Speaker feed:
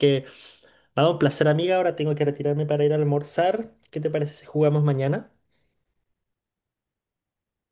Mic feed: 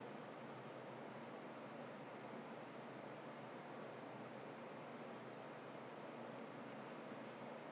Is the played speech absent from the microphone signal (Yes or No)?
Yes